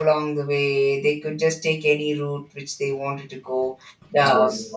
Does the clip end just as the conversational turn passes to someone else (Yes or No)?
No